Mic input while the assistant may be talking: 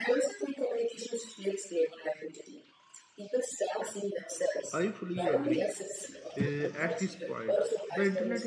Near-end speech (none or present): present